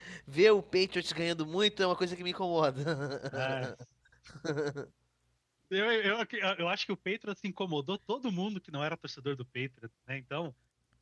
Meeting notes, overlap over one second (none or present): none